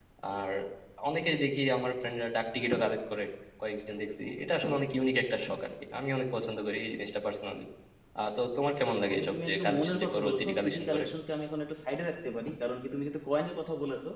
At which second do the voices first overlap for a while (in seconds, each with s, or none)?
9.1 s